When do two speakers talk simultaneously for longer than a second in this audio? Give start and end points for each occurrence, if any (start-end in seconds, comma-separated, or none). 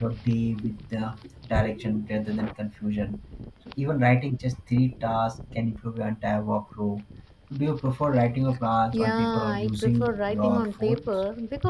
8.9-11.0